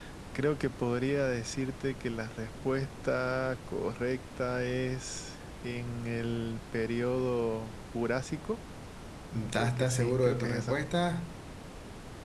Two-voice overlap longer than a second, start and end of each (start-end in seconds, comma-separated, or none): 9.5-10.8